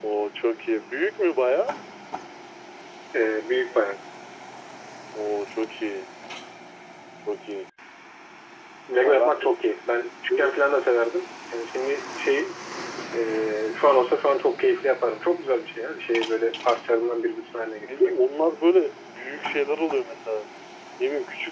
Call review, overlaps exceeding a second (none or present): none